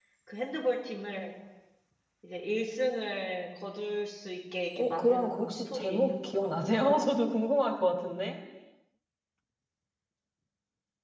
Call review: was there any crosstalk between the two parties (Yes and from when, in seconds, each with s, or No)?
Yes, from 4.8 s